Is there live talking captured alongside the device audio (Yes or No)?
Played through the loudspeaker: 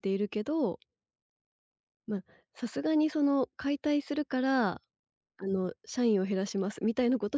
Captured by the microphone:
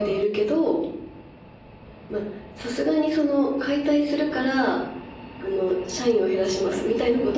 No